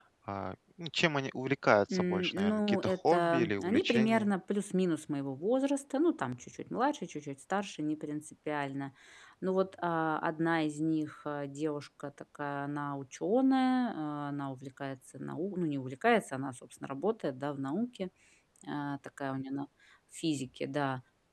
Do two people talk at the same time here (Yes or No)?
Yes